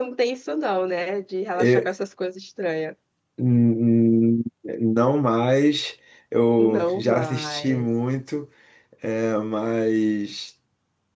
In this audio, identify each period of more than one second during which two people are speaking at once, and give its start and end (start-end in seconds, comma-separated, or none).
6.6-7.9